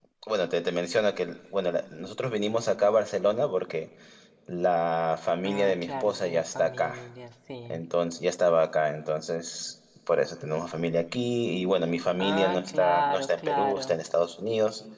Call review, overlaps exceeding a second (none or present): present